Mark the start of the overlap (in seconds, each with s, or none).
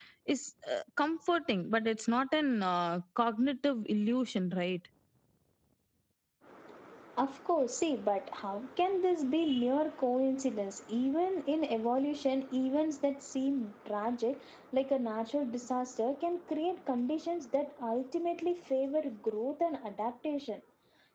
none